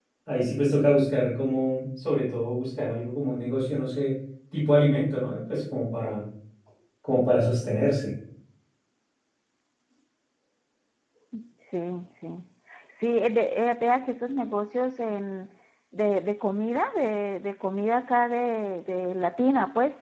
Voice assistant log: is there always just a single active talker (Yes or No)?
Yes